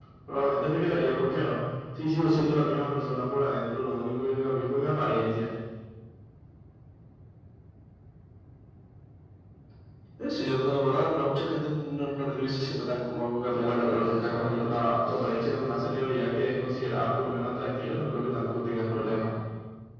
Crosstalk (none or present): present